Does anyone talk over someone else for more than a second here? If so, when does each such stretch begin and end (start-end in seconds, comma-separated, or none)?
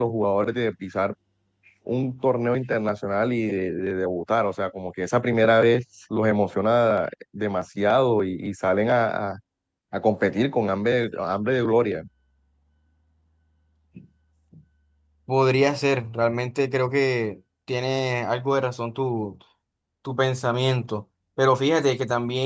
none